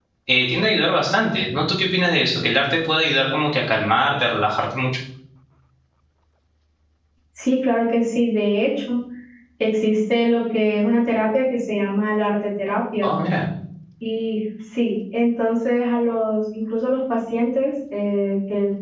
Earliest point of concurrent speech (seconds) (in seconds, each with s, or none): none